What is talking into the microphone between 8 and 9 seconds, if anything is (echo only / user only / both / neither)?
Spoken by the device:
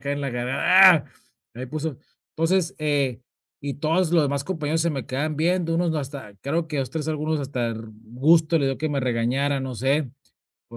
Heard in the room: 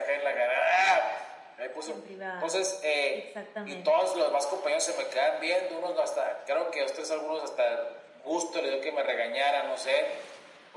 echo only